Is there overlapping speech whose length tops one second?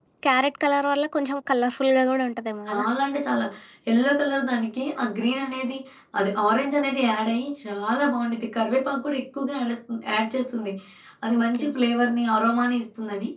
No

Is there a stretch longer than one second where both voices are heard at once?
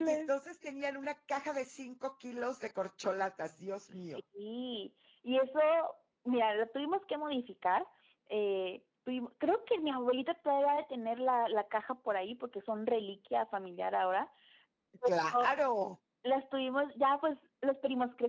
No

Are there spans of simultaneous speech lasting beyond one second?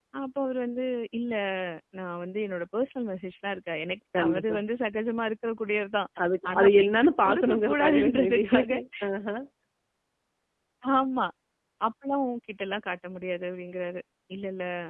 Yes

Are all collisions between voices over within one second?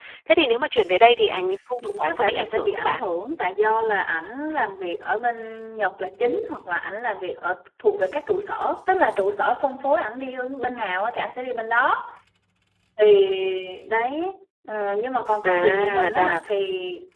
No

